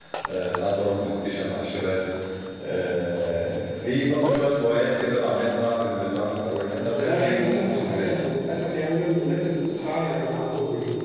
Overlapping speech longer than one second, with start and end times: 6.9-8.1

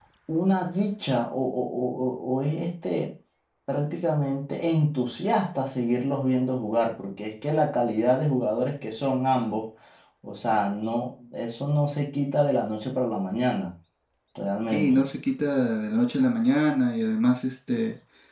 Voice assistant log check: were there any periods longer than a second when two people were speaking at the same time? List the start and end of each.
none

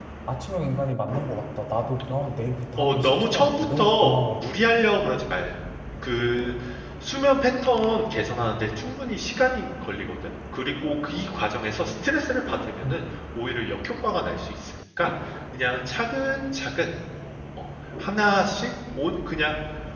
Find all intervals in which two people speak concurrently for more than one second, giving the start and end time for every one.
2.8-4.5

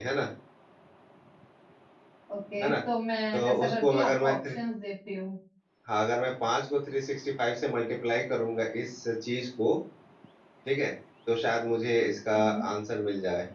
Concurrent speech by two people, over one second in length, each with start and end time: 3.3-4.5

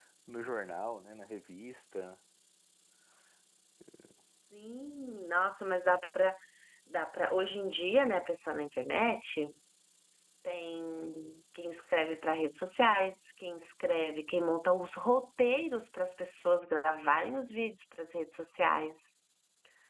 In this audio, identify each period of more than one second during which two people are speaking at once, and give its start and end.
none

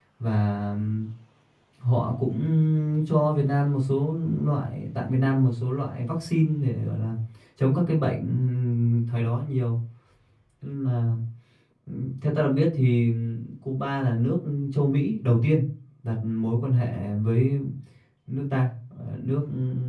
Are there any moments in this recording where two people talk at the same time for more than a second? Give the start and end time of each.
none

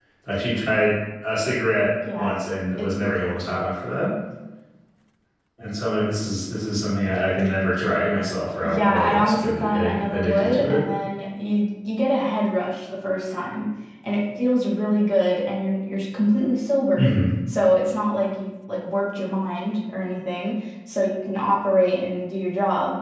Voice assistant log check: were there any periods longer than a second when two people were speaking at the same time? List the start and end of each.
8.7-10.8

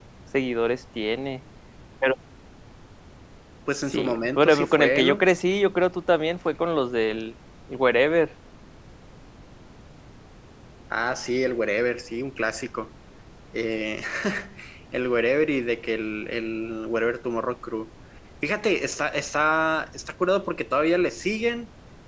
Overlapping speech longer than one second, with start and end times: 3.9-5.2

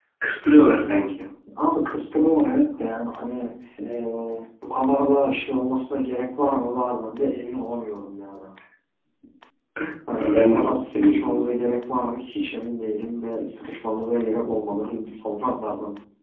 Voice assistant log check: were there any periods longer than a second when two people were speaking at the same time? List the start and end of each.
10.2-11.5

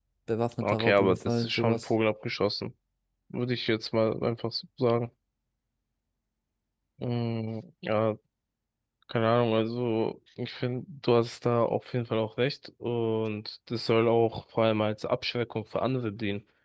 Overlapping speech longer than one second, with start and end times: 0.6-1.9

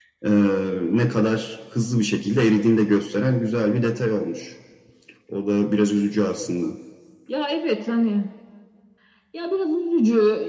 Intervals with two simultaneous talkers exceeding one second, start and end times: none

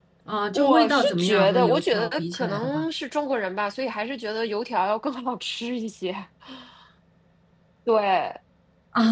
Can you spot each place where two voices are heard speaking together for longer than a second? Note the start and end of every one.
0.5-2.8

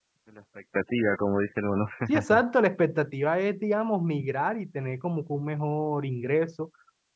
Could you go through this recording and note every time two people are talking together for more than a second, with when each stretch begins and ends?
none

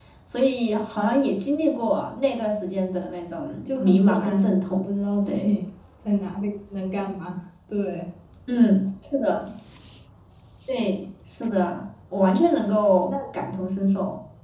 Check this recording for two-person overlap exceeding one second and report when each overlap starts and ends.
3.6-4.9

